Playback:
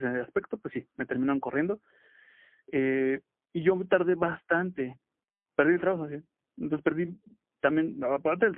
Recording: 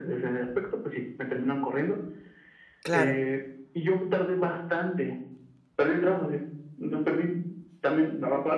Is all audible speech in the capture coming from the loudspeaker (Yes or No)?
No